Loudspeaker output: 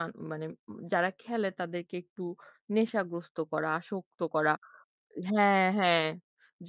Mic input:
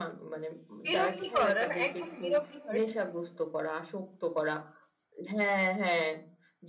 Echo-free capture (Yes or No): No